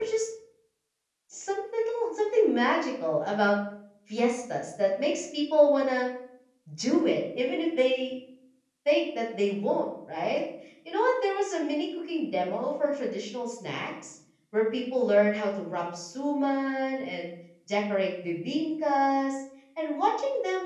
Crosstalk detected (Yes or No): No